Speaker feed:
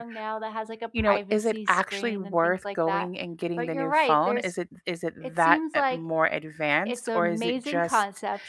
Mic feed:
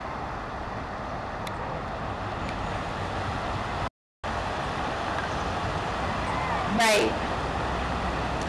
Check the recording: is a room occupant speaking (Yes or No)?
Yes